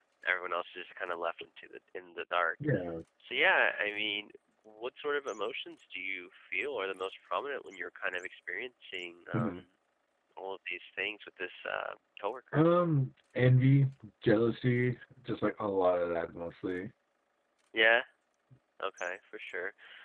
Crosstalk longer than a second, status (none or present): none